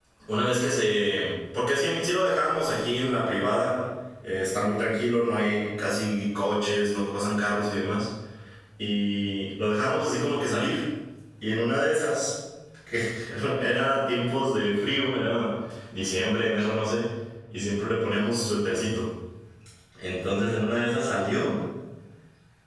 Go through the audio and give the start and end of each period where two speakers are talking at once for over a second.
none

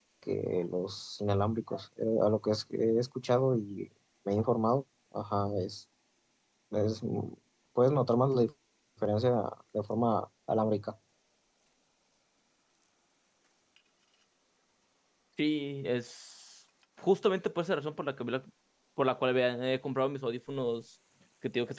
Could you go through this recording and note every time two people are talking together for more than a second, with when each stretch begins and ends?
none

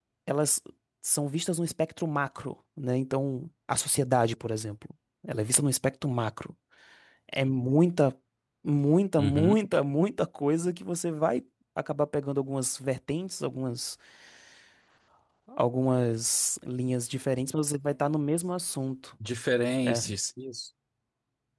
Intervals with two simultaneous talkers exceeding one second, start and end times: none

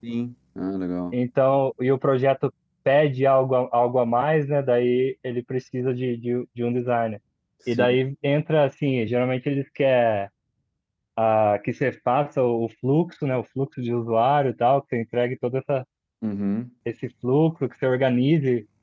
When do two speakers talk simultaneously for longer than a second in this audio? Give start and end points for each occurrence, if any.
none

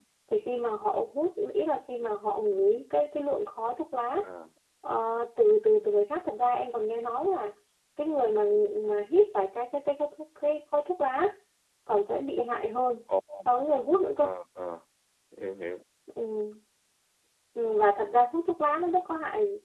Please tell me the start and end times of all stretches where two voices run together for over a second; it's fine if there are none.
none

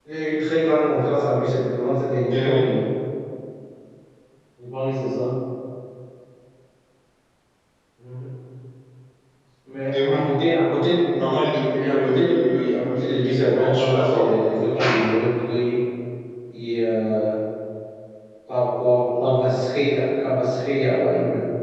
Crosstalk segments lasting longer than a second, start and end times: 11.7-14.3

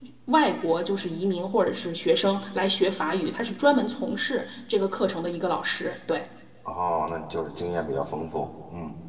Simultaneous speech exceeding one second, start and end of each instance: none

